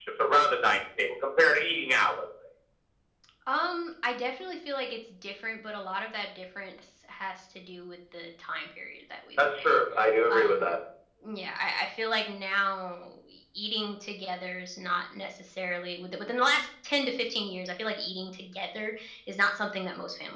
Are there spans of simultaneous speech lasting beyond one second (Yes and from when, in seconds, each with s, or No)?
No